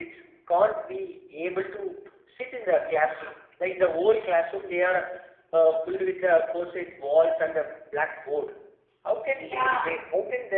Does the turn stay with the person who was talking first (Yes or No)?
Yes